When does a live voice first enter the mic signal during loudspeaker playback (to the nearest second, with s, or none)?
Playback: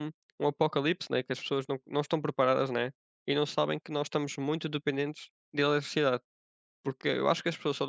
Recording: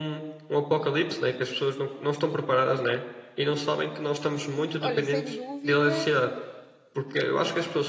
5 s